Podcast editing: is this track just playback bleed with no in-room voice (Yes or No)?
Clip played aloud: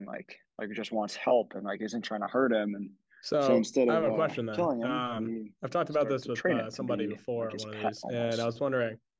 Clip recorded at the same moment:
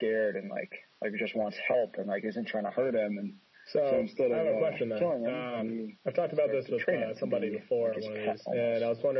Yes